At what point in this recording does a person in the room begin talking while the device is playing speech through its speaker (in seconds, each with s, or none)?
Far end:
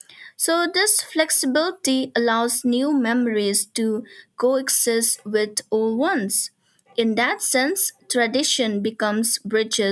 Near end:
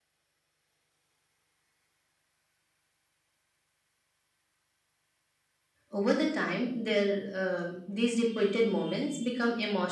5.9 s